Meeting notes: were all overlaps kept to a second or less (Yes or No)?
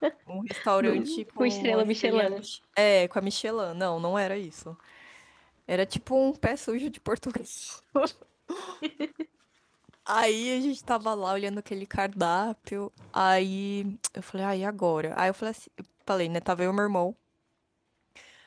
No